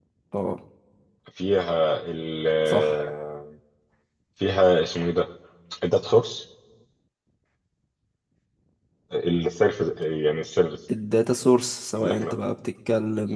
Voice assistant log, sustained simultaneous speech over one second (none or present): none